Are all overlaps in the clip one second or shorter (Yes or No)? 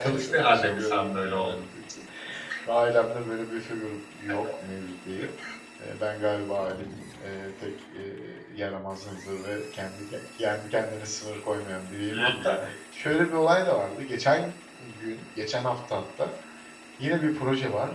No